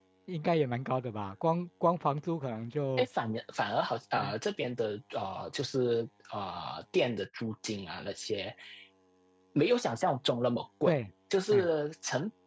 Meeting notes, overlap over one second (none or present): none